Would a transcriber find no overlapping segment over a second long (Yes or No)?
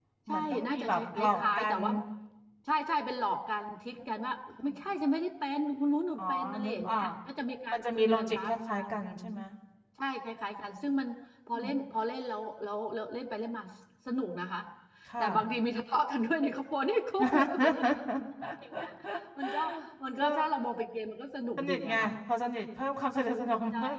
No